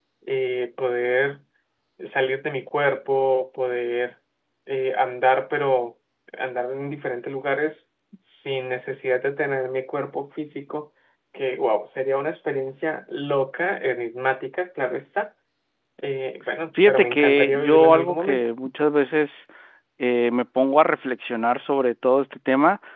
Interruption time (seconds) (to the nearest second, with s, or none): 17 s